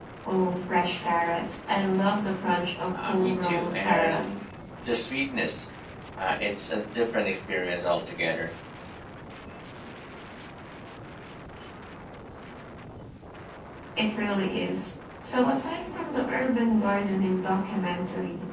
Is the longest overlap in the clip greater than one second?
Yes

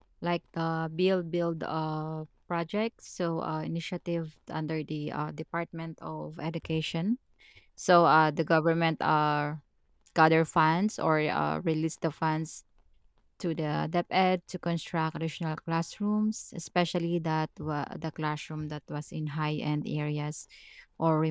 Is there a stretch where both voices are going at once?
No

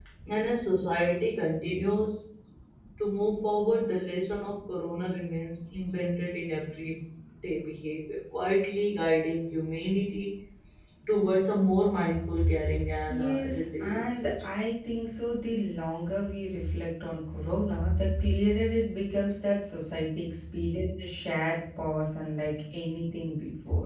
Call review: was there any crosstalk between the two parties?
Yes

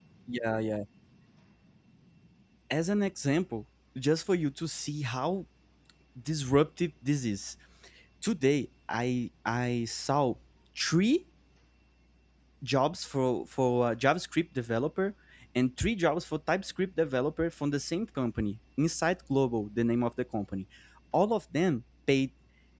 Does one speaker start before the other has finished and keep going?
No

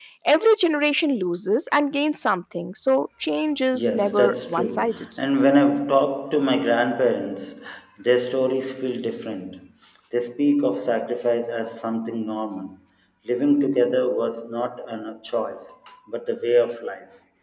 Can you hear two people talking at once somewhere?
Yes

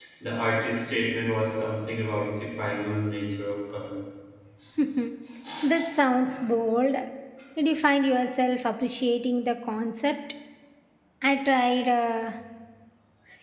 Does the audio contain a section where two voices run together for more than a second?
No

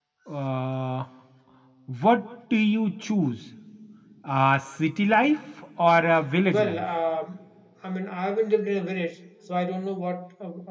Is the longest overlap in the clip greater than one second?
No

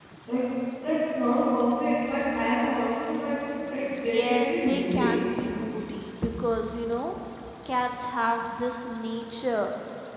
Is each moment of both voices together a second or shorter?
No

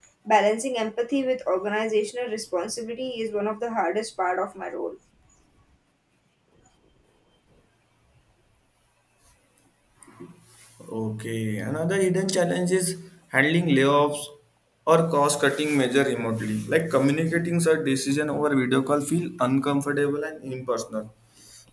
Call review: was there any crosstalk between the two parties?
No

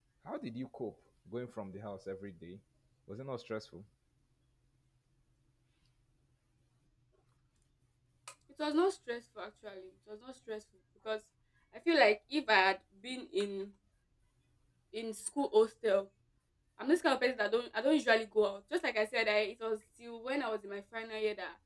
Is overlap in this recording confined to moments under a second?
Yes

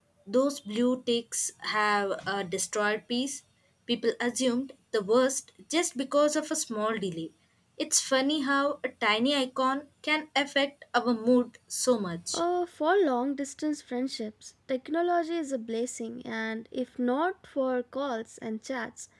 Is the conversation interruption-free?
Yes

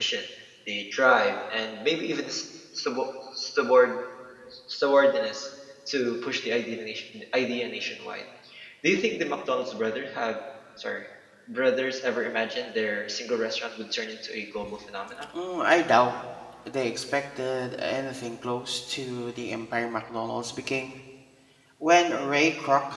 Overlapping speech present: No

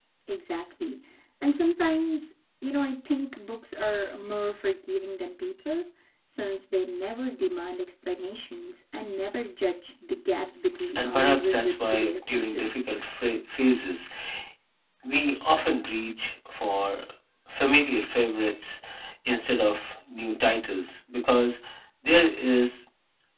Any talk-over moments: Yes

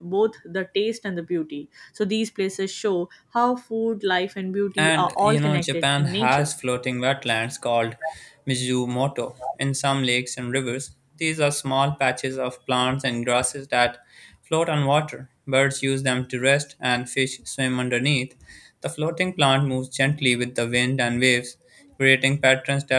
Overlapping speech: Yes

